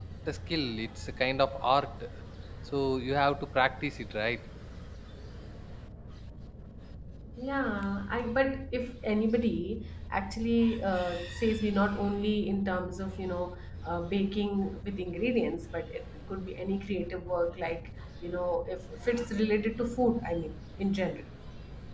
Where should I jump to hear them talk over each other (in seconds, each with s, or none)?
none